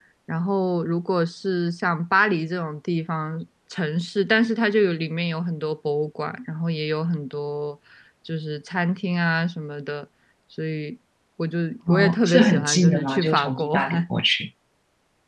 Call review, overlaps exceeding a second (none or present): present